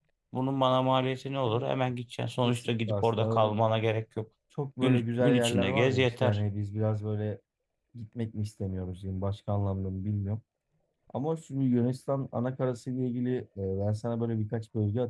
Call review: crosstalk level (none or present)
present